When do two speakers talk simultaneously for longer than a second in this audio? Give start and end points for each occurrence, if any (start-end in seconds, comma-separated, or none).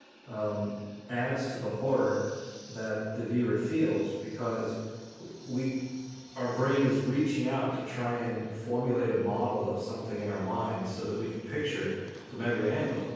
none